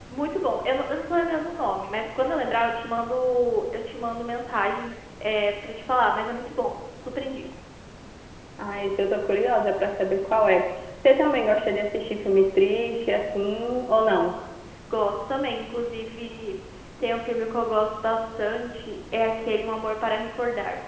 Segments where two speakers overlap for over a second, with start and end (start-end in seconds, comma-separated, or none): none